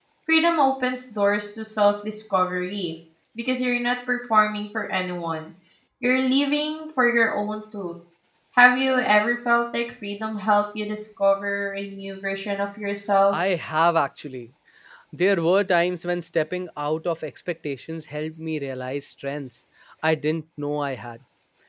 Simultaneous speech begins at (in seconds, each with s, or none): none